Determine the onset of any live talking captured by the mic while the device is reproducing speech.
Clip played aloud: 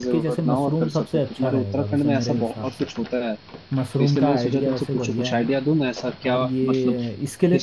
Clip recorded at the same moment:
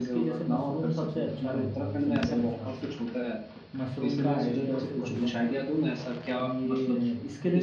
none

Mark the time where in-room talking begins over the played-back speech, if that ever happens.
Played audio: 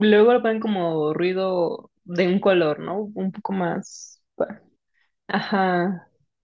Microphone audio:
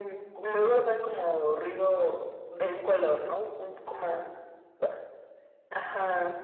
none

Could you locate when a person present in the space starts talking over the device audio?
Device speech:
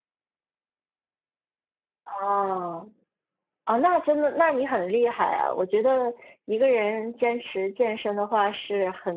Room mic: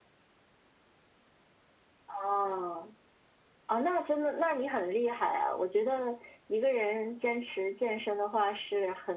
none

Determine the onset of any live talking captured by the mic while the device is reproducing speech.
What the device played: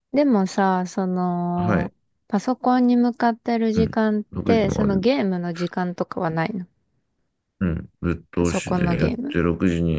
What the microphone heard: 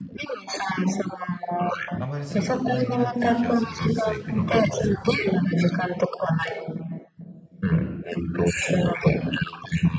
2.0 s

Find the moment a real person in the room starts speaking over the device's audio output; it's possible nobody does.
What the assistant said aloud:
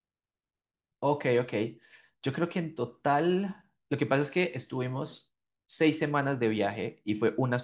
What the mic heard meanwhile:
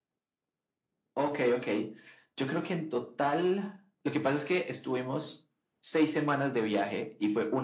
none

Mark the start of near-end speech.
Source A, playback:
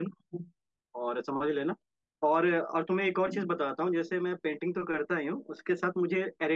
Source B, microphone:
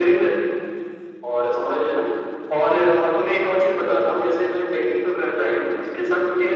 none

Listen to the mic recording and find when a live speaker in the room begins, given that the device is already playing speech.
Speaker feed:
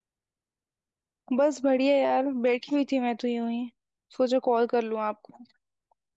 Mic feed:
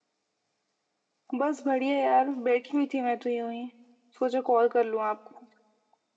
none

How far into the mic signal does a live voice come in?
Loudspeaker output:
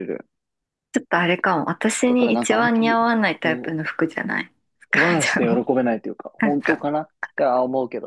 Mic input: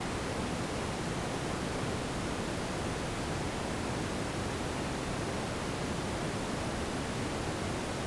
none

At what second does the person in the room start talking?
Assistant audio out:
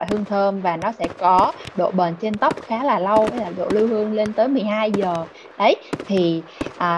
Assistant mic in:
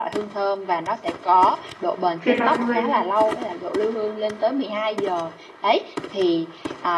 2.2 s

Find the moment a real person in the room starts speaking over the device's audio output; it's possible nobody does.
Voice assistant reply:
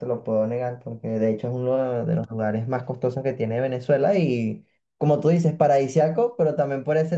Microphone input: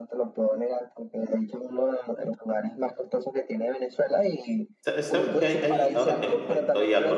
4.8 s

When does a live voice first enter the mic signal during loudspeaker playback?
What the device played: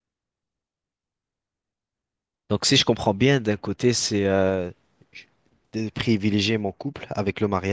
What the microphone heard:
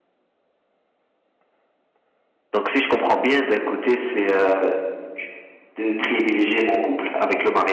none

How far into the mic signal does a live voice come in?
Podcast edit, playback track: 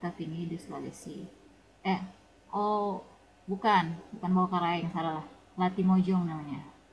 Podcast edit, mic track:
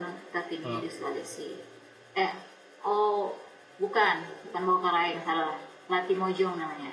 0.6 s

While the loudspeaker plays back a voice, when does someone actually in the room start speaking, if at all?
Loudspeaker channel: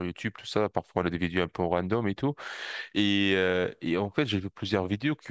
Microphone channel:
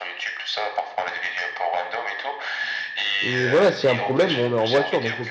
3.2 s

